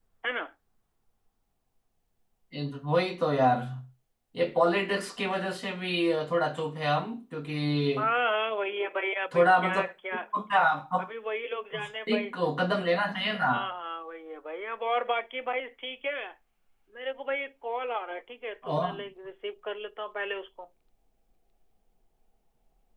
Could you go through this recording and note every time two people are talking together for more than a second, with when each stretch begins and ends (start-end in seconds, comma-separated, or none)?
none